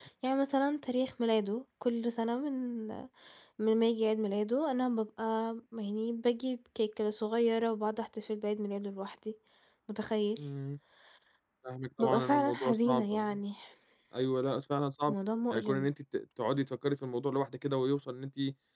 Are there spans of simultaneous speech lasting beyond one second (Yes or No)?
Yes